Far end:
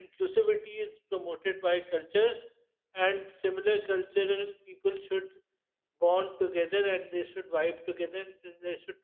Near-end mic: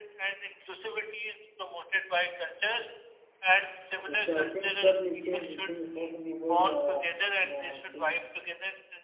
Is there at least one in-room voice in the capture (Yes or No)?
Yes